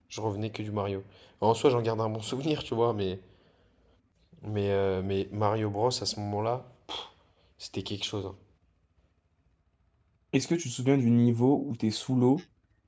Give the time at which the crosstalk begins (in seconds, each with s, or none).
none